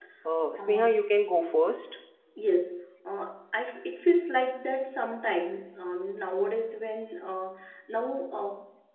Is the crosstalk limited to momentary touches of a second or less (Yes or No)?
Yes